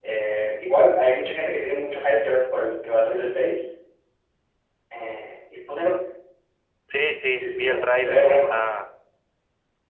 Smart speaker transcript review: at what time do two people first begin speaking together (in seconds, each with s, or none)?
7.4 s